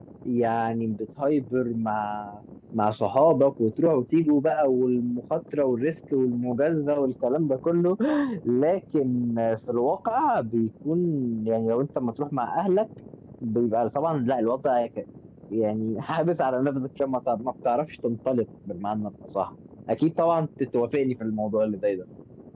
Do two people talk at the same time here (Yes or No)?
No